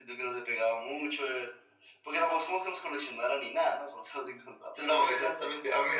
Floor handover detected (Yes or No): Yes